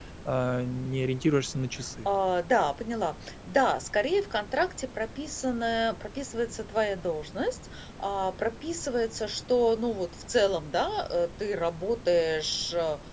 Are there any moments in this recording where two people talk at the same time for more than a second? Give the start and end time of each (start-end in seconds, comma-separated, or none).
none